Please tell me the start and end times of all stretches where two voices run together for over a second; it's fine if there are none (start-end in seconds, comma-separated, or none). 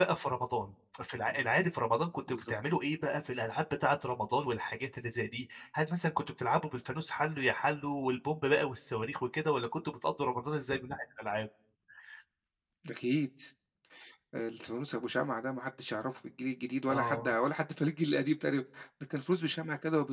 none